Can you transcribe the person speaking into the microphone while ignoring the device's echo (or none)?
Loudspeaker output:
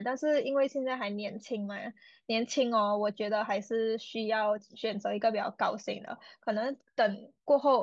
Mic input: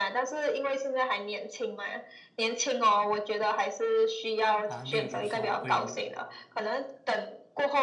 啊，例如说，我有